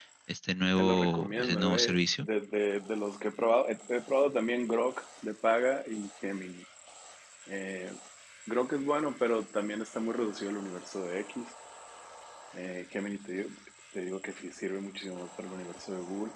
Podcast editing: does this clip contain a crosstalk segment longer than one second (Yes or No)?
Yes